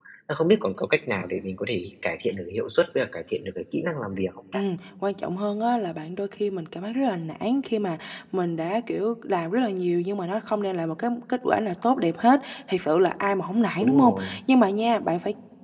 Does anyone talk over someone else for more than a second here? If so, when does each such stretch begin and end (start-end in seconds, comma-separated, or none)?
none